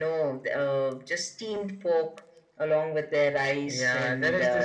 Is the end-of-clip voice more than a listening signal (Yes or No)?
Yes